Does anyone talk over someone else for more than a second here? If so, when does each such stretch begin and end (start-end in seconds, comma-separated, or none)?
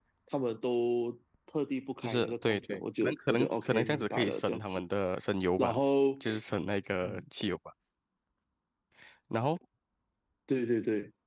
2.0-4.8